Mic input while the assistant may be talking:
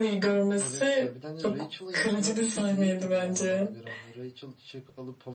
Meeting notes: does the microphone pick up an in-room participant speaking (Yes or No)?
Yes